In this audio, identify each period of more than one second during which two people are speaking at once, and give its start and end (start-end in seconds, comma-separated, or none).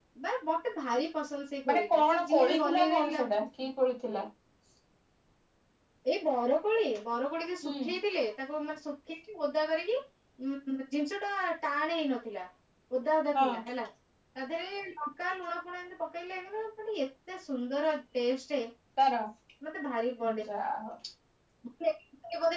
1.7-3.7